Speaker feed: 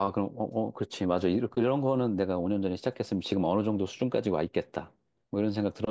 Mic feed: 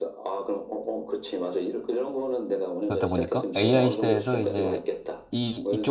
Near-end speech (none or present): present